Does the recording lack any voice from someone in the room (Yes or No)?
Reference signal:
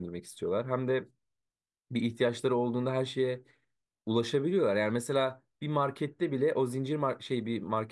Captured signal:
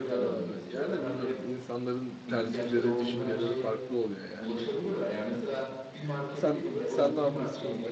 No